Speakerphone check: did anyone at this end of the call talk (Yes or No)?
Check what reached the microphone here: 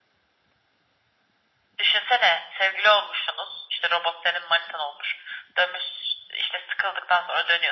No